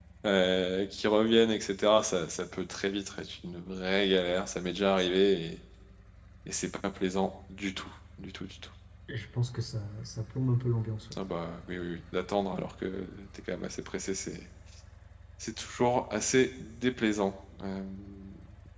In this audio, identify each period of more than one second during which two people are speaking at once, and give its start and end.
none

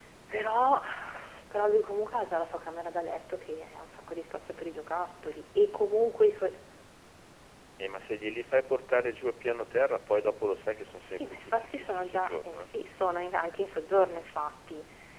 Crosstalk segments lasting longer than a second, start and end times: 11.2-12.7

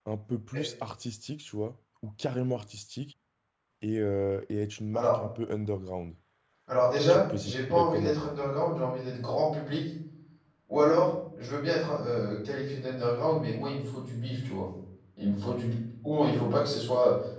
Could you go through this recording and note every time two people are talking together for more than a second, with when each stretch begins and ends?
6.9-8.2

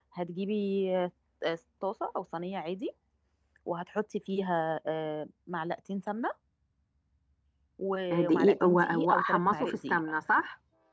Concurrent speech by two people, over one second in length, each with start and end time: 8.1-10.0

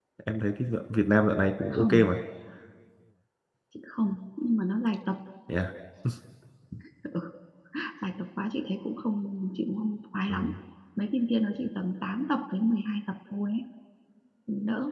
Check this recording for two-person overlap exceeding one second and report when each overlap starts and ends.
none

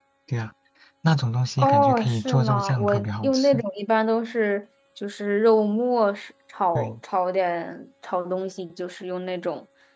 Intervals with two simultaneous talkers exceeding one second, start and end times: 1.6-3.6

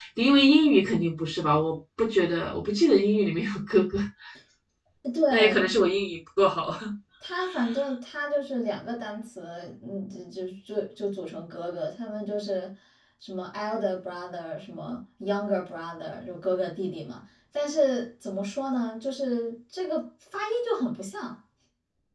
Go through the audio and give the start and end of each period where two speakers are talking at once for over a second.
none

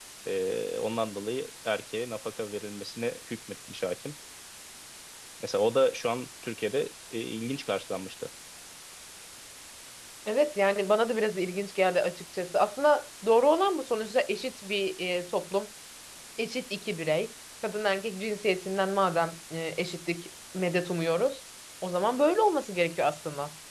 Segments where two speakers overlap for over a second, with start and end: none

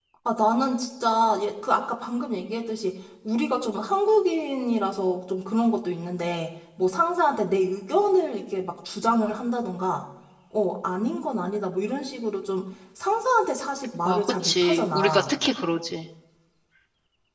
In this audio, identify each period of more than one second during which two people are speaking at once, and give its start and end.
14.0-15.3

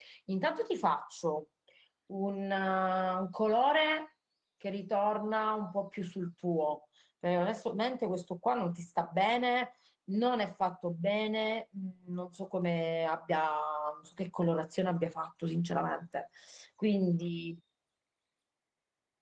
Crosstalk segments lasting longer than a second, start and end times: none

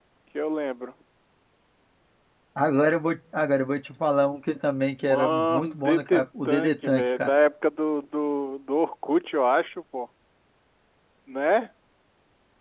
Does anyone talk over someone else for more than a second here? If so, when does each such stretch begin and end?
5.0-7.3

